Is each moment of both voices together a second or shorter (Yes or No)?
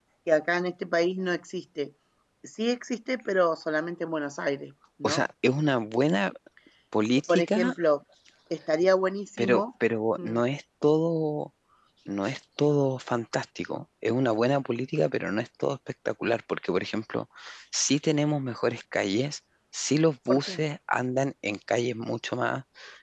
Yes